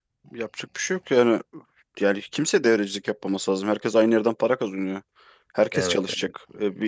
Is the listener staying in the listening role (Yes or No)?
Yes